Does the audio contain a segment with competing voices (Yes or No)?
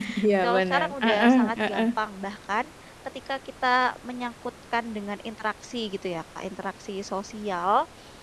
Yes